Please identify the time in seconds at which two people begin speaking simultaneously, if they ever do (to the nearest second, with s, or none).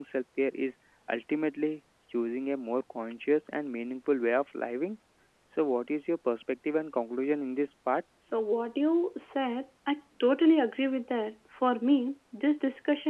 none